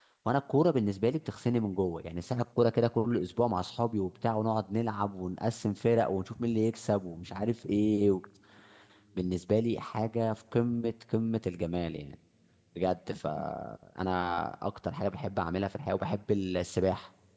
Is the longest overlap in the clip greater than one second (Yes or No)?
No